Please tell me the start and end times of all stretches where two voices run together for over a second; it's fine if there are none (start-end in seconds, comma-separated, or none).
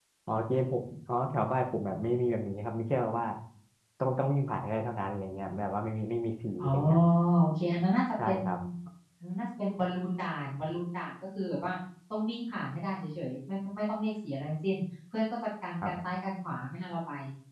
none